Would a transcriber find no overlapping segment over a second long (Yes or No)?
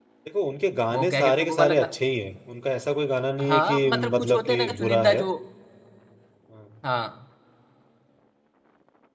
No